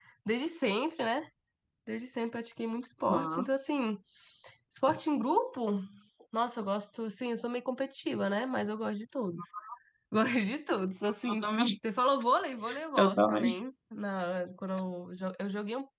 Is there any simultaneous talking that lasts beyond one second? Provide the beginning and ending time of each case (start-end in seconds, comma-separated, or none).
none